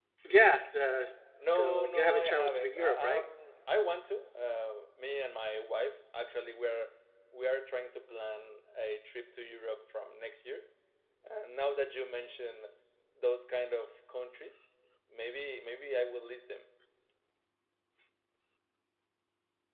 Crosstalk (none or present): present